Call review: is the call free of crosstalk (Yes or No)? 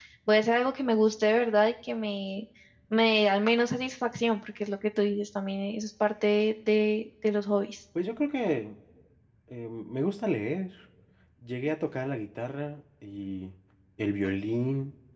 Yes